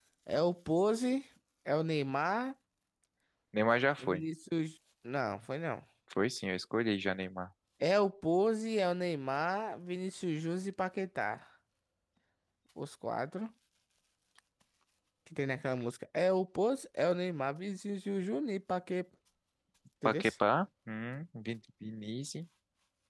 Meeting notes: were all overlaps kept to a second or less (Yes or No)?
Yes